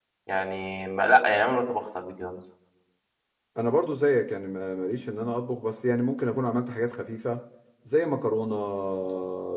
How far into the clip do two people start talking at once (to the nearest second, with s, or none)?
none